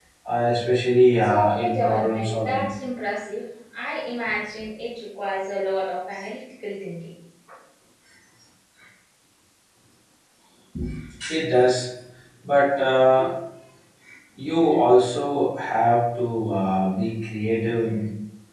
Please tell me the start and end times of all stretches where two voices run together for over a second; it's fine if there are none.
1.2-2.7

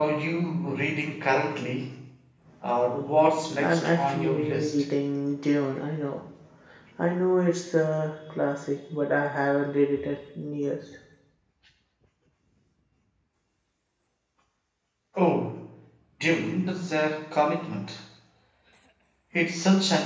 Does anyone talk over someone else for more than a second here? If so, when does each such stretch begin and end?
3.6-4.8

